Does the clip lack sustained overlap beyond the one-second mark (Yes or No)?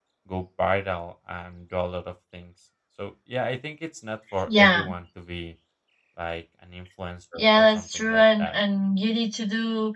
No